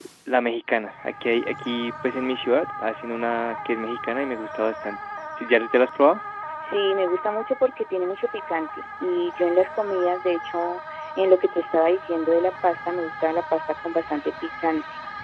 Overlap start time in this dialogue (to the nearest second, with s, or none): none